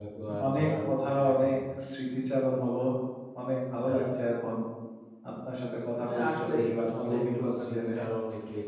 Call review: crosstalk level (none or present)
present